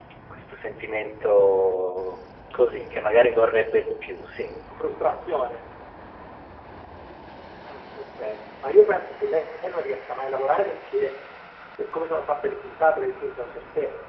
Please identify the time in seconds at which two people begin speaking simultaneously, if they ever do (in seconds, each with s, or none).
none